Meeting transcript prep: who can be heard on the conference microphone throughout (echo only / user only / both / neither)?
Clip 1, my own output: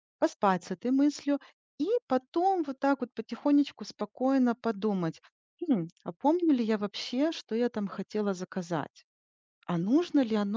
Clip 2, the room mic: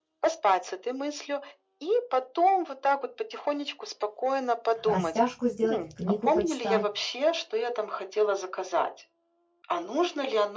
both